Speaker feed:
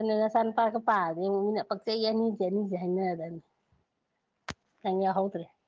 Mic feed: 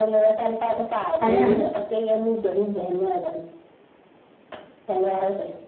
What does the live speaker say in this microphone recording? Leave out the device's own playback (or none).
ꯍꯥꯏꯅꯅꯤ